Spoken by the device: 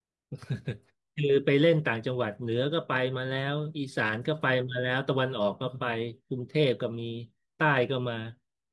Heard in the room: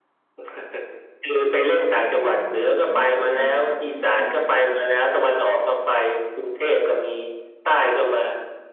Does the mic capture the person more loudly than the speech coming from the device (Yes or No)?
No